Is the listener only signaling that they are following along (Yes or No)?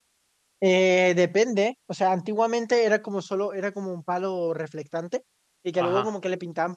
Yes